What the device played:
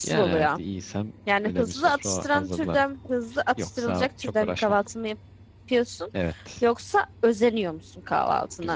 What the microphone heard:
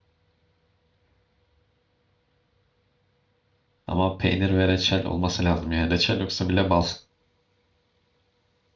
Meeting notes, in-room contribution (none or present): present